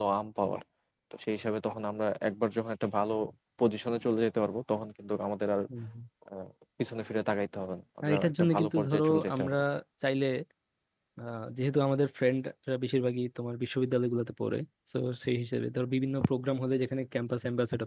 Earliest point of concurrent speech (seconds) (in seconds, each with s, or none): 8.0 s